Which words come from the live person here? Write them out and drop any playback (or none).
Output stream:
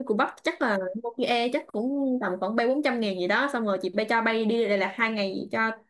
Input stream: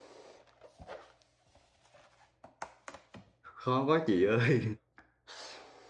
khó quá chị ơi